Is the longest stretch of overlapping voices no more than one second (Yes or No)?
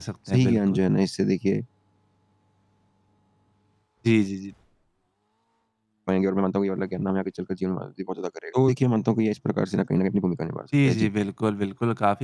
Yes